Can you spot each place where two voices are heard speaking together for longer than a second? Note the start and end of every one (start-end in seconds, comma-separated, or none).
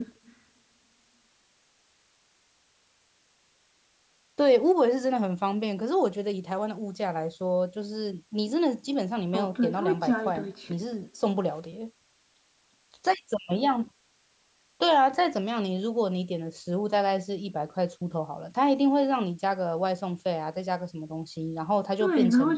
9.3-10.7